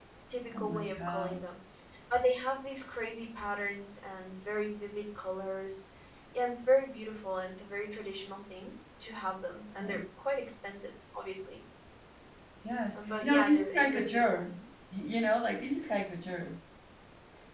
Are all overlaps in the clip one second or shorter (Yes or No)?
No